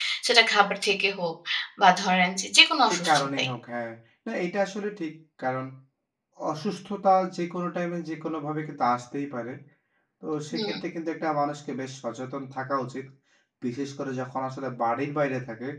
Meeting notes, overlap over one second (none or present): none